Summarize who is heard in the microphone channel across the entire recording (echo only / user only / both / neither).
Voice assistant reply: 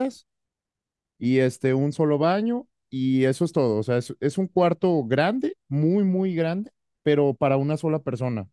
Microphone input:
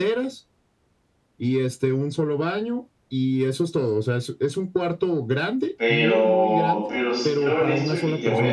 both